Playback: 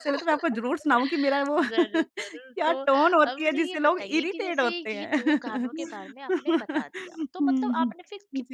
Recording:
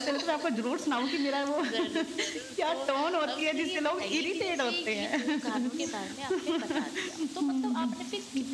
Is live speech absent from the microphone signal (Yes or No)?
Yes